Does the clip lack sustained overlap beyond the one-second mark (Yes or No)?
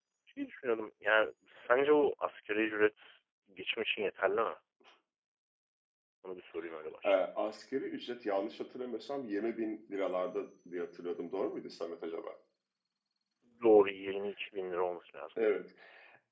Yes